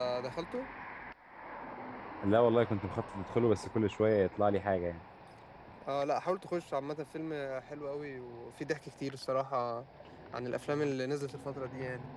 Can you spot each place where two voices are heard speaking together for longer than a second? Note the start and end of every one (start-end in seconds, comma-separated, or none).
none